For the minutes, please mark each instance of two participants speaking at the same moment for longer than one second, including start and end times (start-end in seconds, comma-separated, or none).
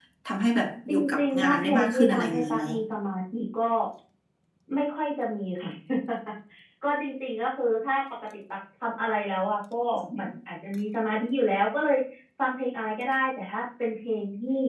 0.9-2.6